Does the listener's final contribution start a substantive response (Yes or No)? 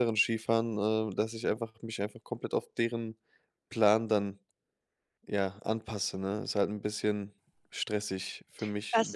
Yes